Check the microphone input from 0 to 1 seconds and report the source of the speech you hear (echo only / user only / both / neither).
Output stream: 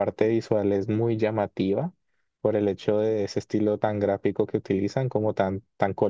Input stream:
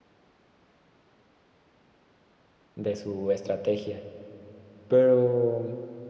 neither